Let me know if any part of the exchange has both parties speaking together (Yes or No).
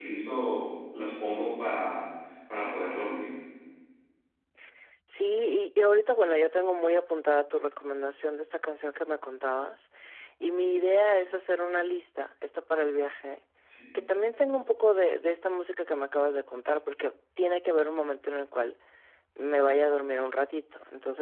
No